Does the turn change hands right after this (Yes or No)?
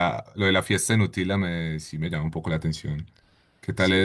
No